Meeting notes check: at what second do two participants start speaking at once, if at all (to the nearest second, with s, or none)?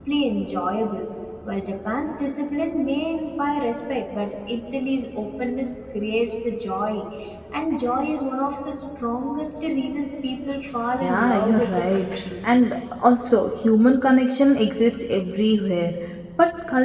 11 s